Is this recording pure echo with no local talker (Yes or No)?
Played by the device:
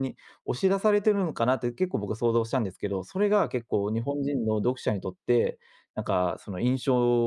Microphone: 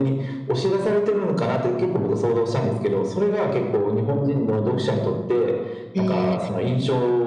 No